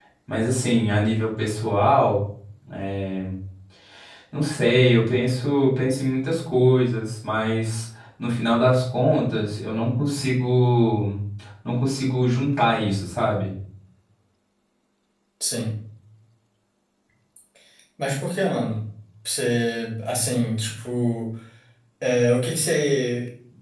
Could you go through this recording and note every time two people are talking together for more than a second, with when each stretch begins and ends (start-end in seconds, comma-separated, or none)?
none